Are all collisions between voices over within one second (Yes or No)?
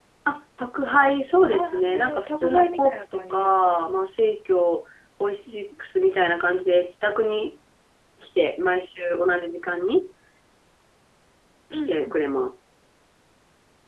No